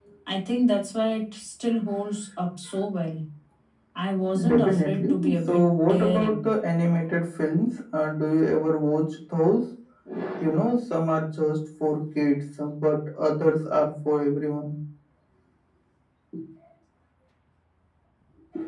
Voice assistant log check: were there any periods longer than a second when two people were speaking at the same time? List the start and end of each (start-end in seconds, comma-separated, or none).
4.5-6.4